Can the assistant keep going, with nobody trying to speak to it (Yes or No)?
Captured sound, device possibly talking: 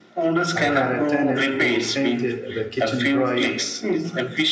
No